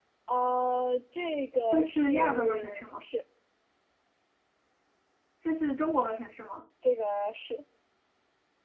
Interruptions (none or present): present